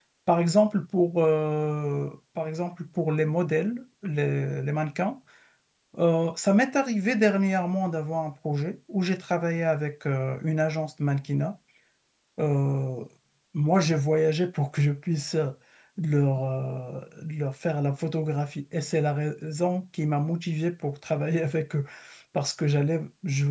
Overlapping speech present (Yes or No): No